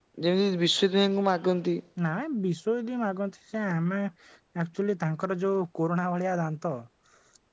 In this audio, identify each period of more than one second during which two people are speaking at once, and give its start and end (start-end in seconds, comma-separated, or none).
none